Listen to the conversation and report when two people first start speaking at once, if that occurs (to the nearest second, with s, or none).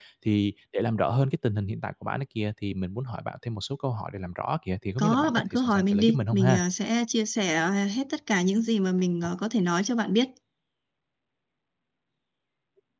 5 s